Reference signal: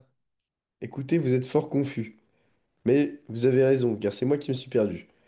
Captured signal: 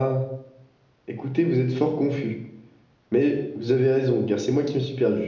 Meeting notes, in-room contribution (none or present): none